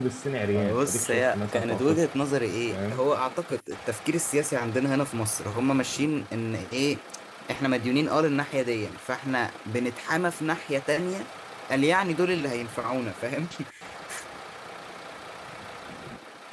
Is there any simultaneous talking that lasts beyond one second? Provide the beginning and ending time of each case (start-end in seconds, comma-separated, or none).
0.5-2.1